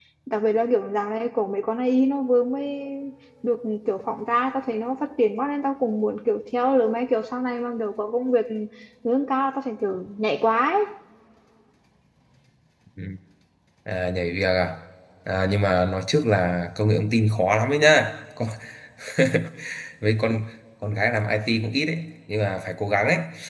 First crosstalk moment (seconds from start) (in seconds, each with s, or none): none